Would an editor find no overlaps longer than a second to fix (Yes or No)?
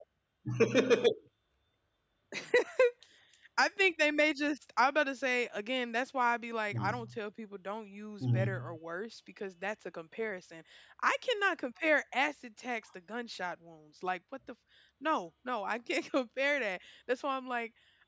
Yes